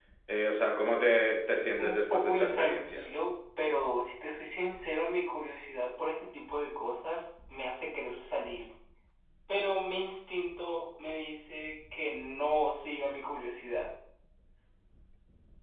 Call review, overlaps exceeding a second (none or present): present